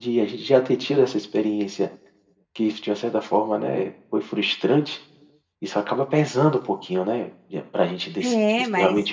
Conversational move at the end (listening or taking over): taking over